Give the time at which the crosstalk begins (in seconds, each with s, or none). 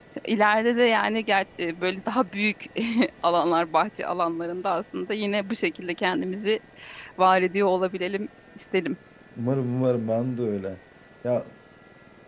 none